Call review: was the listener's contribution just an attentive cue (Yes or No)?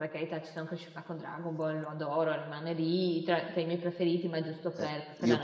No